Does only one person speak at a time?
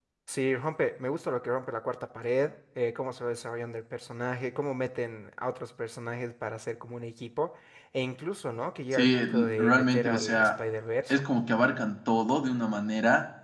No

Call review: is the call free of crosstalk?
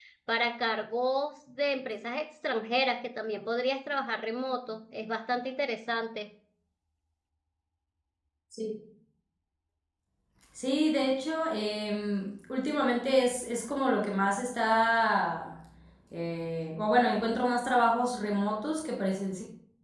Yes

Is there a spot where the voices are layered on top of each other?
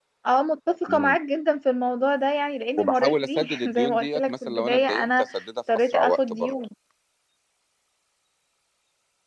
Yes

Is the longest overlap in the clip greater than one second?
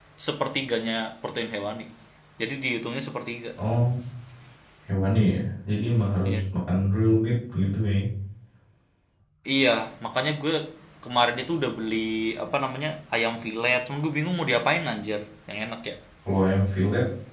No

